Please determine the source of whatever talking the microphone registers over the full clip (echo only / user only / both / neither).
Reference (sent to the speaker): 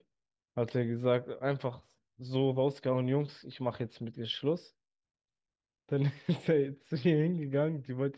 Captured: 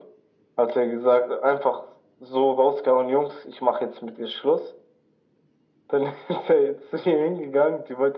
echo only